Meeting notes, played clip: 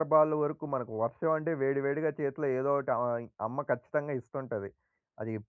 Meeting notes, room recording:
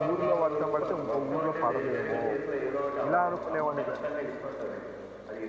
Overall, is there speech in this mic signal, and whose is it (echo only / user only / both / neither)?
both